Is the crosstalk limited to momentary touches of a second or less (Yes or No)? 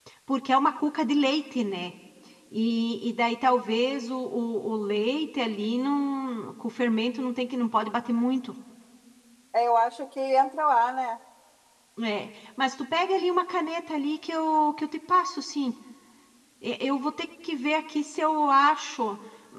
Yes